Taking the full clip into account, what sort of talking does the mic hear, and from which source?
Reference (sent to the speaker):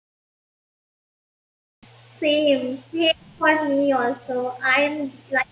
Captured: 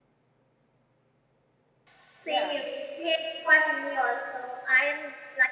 both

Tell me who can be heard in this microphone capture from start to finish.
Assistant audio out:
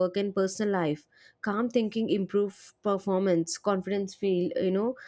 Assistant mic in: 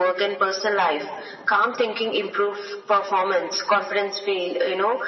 echo only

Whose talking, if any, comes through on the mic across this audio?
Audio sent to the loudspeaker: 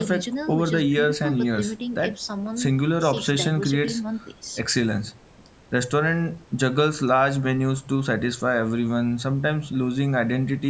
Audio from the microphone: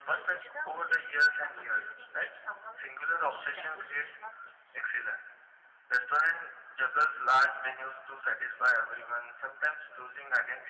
echo only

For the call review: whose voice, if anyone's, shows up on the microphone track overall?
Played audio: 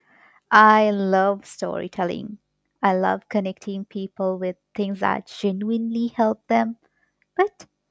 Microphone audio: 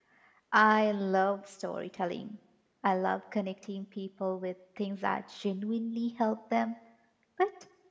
echo only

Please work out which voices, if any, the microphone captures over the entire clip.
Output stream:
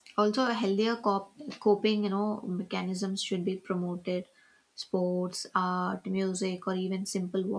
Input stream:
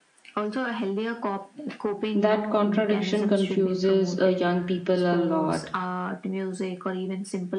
both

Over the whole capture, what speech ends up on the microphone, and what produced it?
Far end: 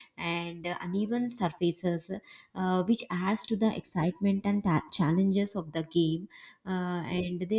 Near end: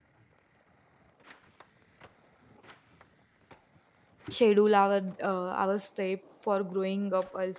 user only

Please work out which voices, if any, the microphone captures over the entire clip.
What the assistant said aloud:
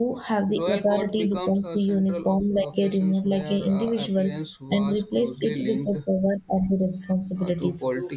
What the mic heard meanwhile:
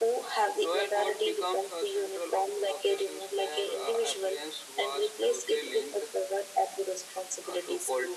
echo only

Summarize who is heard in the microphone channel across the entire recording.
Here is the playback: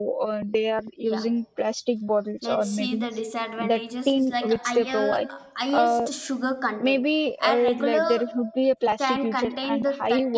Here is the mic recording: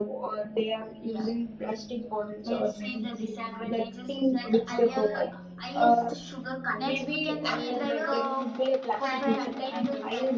both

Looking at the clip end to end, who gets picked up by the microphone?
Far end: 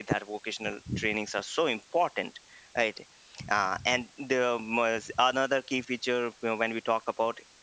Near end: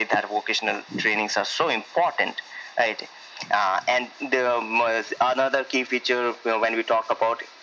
echo only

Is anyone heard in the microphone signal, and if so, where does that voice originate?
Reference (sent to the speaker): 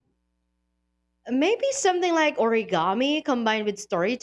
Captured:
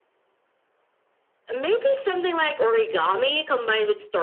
echo only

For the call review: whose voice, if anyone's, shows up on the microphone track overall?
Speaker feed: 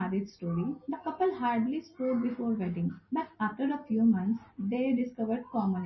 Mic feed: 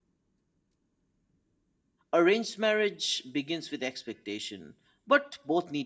user only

